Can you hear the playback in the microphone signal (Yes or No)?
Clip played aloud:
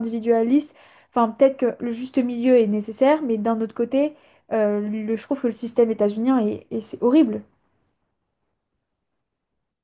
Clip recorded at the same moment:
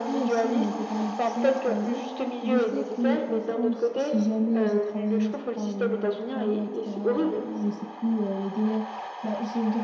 Yes